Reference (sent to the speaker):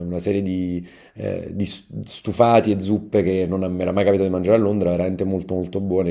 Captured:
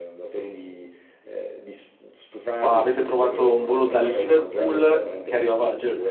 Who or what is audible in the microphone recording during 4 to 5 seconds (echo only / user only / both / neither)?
both